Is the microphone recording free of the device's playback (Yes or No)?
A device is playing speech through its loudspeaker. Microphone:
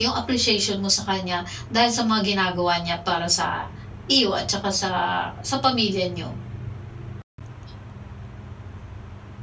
Yes